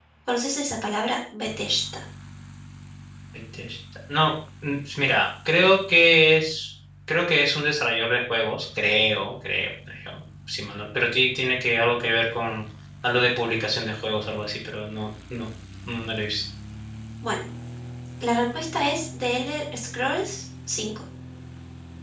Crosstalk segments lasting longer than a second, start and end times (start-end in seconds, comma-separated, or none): none